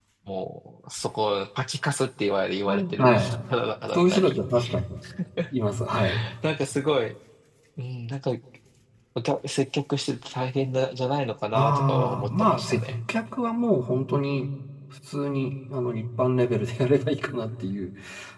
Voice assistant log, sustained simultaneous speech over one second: present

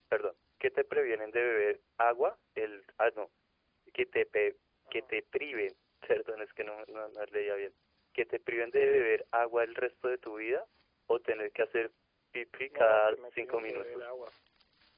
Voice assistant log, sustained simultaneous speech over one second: present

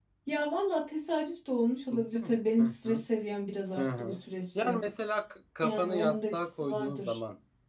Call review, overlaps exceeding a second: present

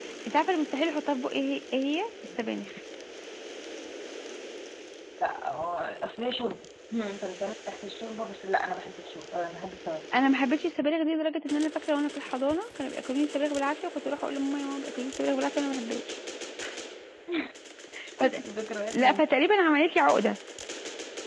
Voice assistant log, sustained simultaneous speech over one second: none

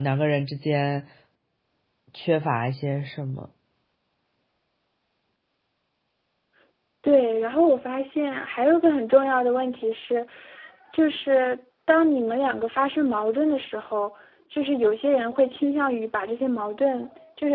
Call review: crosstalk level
none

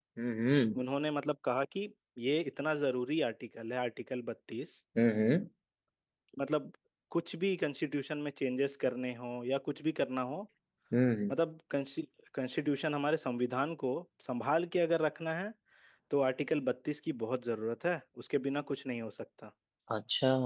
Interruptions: none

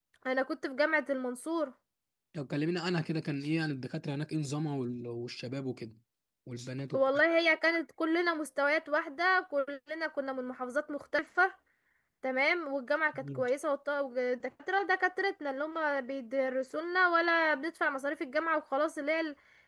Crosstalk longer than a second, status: none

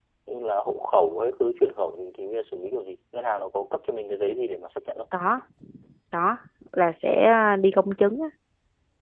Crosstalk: none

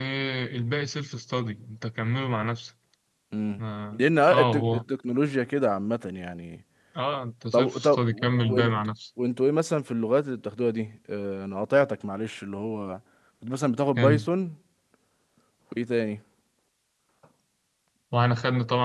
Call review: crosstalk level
present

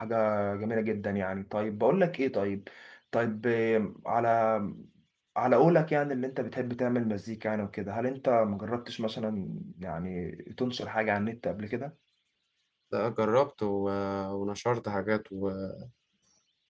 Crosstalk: none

